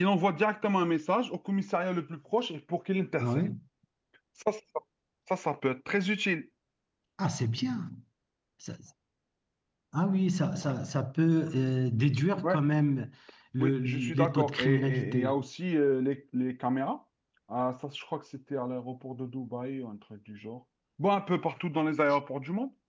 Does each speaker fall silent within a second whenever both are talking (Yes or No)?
No